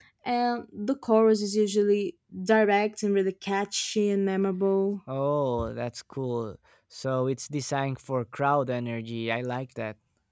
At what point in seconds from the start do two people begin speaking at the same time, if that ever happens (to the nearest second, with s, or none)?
none